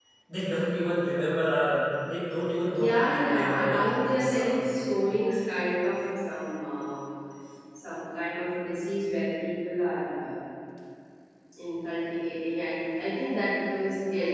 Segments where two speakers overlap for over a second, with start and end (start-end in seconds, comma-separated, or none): 2.8-4.7